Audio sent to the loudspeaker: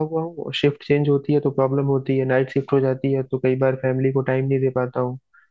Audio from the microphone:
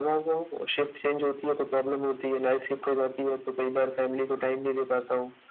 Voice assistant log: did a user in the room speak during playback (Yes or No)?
No